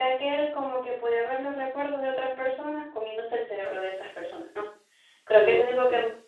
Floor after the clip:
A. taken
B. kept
B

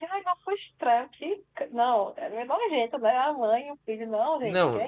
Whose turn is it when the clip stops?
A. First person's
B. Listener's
B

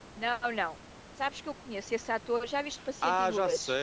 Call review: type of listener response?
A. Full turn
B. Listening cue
A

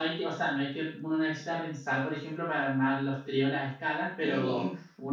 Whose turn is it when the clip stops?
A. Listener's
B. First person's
B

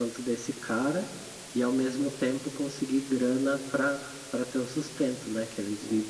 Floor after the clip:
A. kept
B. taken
B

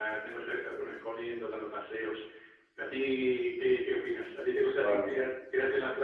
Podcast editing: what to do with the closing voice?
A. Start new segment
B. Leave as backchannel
B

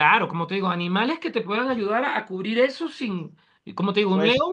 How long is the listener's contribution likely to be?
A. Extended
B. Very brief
B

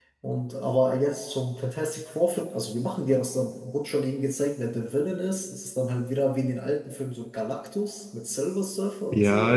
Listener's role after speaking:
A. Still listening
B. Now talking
B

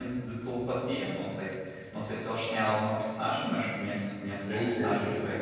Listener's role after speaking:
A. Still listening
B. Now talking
B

